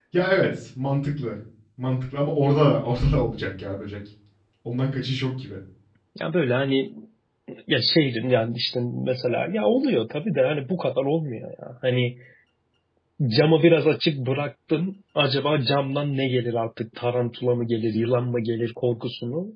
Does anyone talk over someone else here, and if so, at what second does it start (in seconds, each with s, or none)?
none